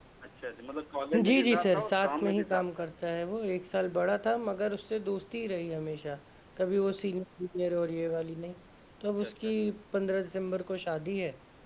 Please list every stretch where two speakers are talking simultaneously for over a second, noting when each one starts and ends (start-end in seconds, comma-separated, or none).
1.3-2.9